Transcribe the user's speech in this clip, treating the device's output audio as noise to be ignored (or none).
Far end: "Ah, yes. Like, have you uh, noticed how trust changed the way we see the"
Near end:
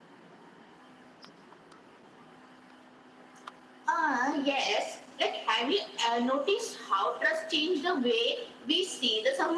none